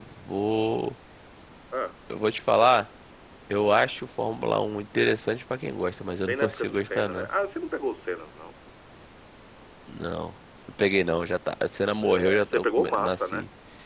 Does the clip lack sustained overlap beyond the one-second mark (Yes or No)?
No